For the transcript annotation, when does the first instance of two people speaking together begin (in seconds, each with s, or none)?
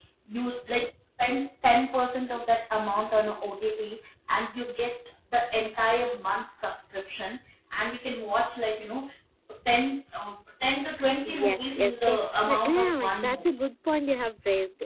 11.2 s